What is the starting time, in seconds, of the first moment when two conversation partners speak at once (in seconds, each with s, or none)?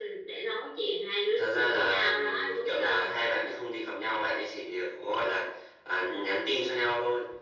1.3 s